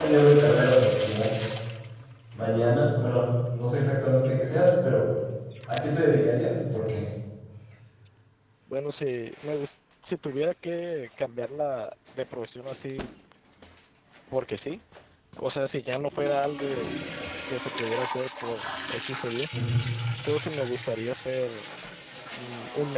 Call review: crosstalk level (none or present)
none